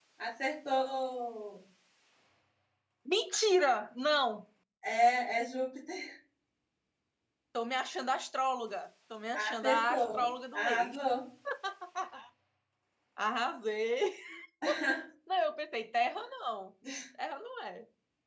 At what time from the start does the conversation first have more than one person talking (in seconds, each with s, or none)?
9.3 s